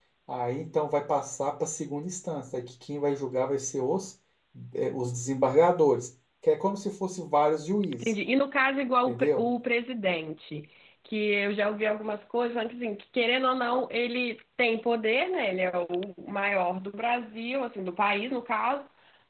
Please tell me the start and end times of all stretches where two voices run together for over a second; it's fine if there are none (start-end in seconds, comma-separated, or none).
none